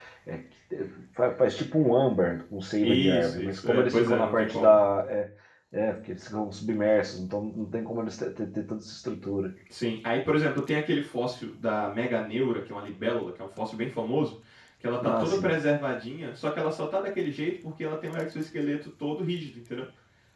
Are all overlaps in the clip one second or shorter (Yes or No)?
No